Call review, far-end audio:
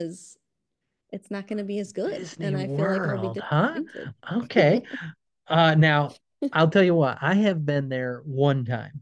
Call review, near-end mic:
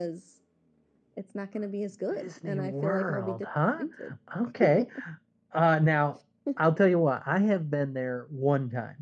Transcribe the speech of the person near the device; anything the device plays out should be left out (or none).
none